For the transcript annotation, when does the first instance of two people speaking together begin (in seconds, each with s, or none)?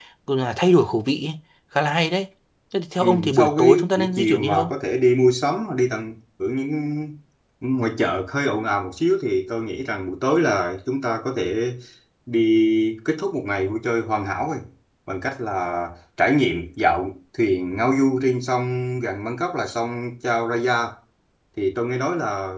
3.0 s